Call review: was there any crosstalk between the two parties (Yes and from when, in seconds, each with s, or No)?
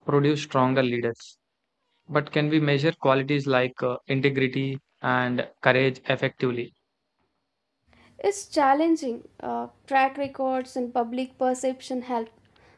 No